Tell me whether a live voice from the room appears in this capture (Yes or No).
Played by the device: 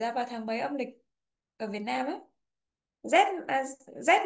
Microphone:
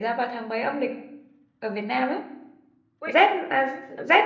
Yes